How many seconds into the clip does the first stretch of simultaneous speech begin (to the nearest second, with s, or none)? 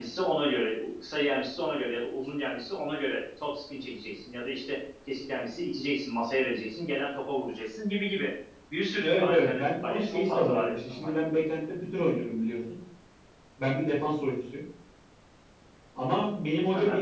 9 s